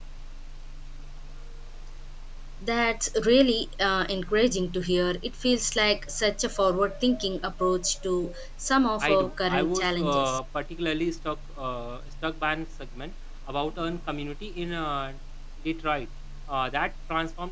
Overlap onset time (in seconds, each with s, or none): 9.0 s